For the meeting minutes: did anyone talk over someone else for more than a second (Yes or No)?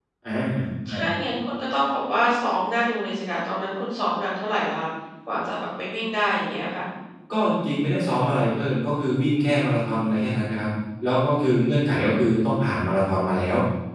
No